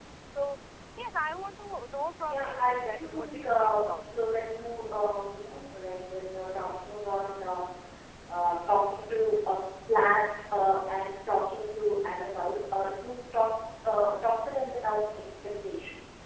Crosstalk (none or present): present